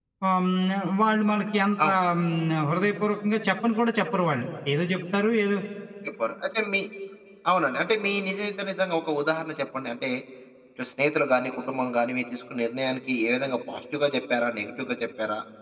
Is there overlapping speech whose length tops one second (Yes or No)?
No